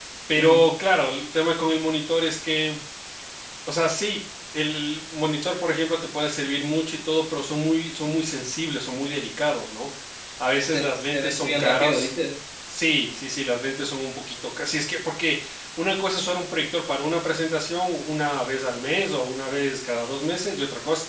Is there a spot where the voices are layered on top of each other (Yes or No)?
Yes